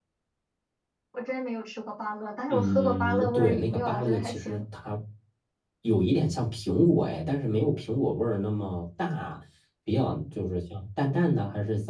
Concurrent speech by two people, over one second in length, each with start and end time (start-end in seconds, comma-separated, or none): 2.5-4.6